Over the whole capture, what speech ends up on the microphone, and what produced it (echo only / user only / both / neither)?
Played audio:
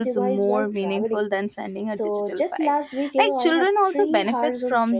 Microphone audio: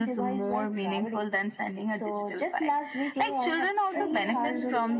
both